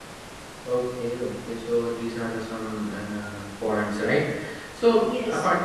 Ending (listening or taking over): listening